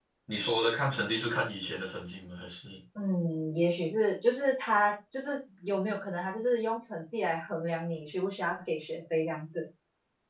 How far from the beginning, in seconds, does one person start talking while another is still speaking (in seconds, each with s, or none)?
none